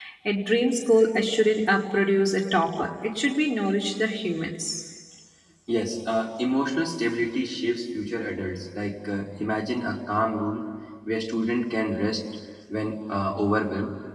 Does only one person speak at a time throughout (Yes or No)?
Yes